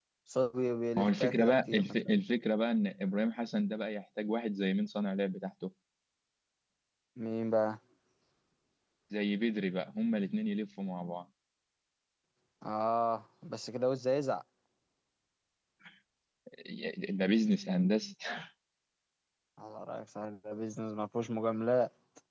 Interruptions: present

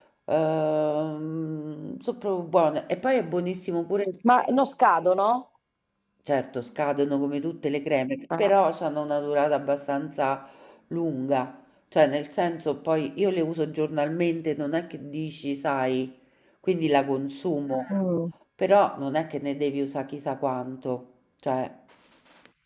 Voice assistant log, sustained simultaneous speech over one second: none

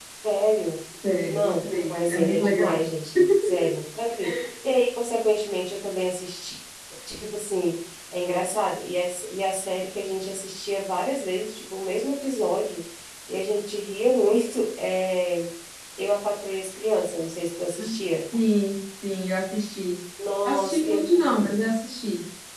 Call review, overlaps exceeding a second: present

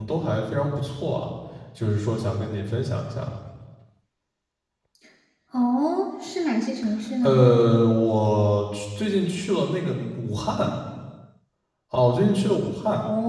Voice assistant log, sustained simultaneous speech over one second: none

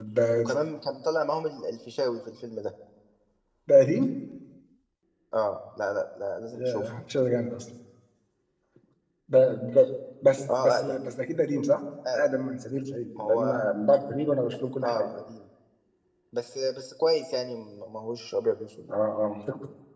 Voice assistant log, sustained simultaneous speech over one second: none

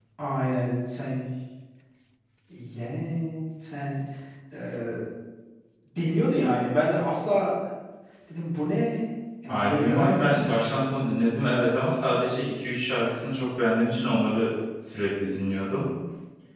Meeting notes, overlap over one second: present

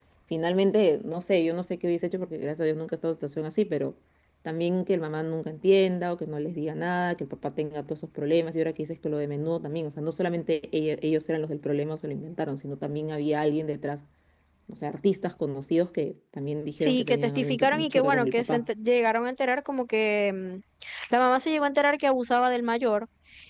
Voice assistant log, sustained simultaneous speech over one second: present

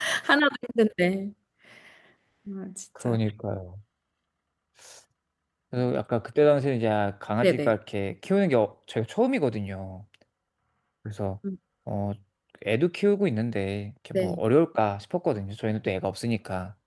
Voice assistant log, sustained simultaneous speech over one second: none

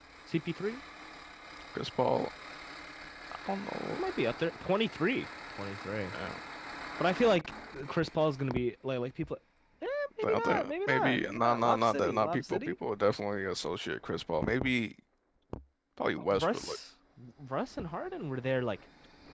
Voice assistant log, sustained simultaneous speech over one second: present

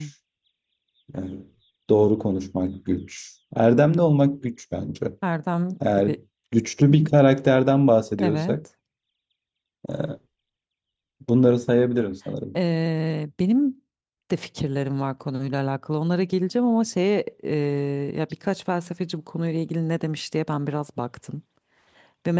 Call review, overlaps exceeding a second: none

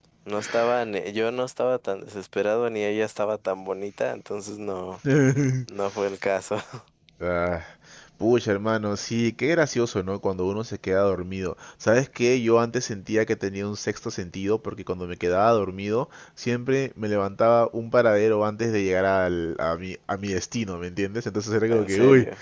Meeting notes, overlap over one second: none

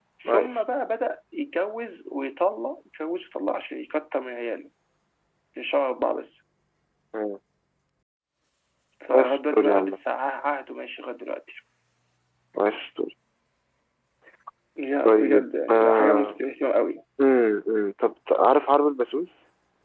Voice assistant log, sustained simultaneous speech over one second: present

